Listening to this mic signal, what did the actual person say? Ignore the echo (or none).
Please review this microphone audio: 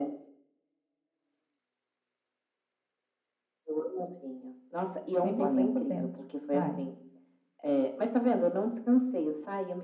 bem molinha por dentro. Vai.